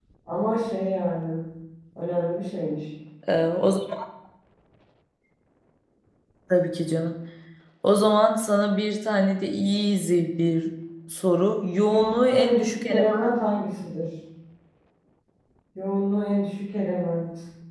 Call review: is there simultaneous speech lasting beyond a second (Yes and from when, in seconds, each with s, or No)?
Yes, from 11.9 s